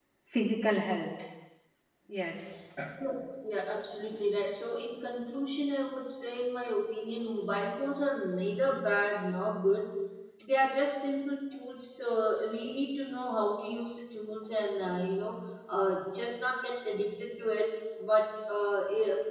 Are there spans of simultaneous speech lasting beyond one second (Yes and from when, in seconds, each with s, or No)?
No